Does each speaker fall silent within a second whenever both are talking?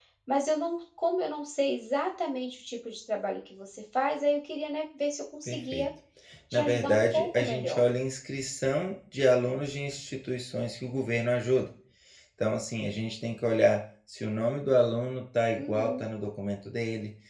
No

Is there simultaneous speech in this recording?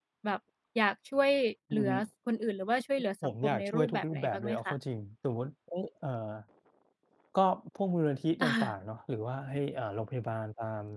Yes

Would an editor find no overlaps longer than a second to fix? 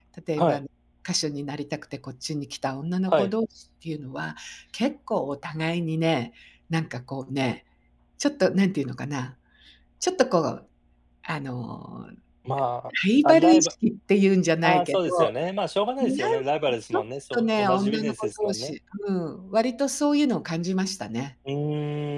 No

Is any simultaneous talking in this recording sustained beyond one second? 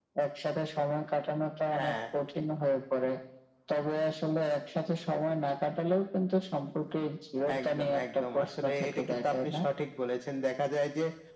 Yes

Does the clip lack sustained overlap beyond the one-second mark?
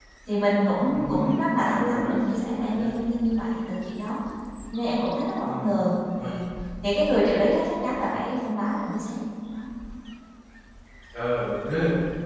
No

